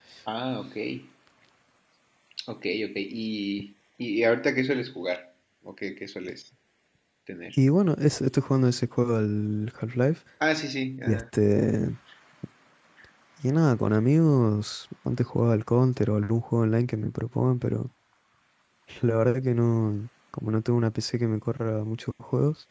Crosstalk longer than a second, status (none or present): none